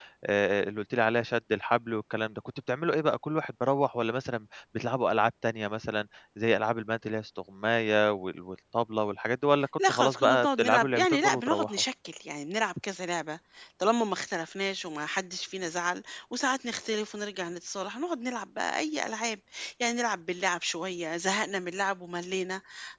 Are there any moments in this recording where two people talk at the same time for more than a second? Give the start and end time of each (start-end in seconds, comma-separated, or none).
9.9-11.8